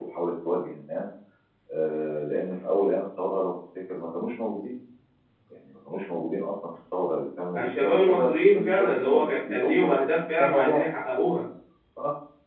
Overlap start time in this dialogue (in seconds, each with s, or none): 7.6 s